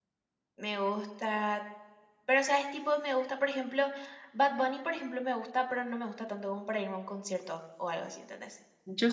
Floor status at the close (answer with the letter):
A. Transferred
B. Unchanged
A